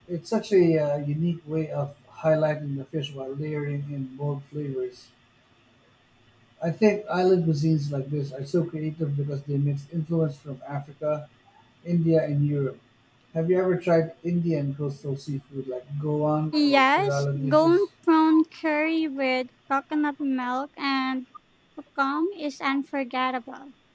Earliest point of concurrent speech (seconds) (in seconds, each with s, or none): 16.5 s